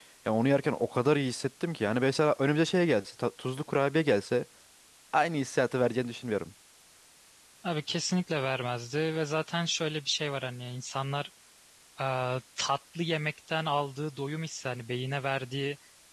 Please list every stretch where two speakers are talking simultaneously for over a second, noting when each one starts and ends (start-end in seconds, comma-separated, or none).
none